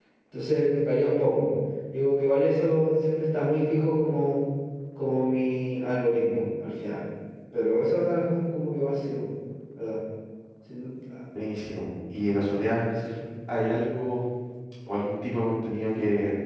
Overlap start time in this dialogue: none

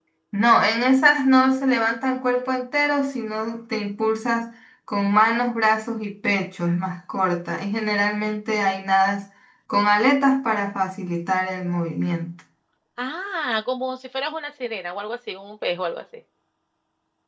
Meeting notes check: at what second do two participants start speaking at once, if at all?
none

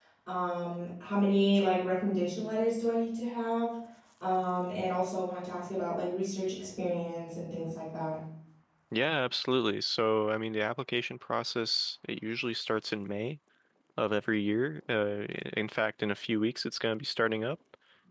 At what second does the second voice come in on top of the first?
none

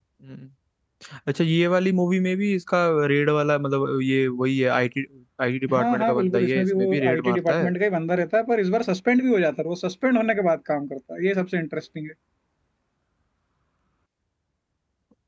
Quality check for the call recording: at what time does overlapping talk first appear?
5.8 s

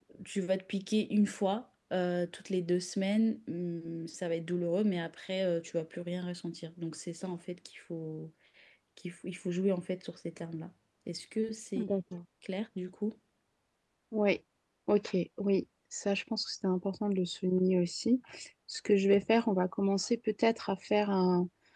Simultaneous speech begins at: none

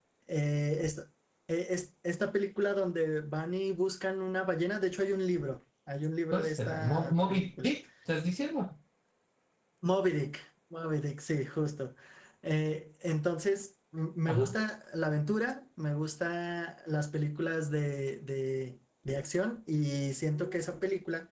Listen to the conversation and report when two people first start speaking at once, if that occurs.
6.3 s

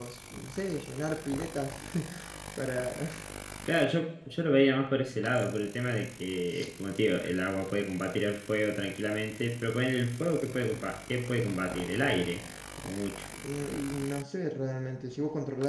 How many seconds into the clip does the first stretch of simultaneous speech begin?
none

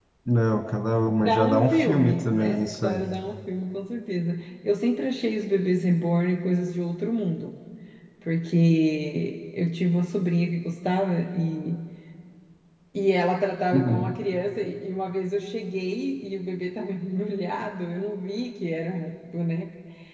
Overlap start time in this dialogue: 1.2 s

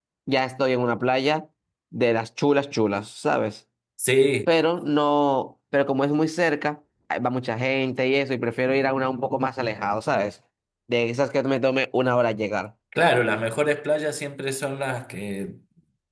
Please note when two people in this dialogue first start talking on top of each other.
none

